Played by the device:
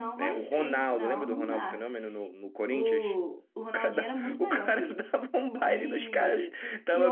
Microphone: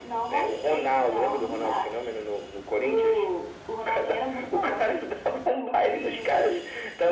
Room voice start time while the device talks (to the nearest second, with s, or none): none